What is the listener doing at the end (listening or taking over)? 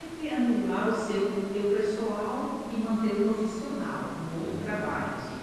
taking over